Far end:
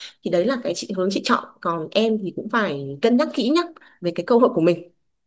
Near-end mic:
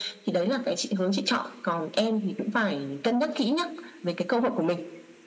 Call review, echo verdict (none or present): present